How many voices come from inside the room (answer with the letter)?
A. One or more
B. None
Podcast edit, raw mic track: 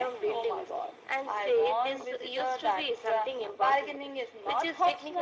B